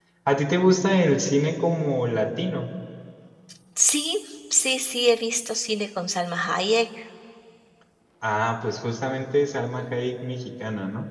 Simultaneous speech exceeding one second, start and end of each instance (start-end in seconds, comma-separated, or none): none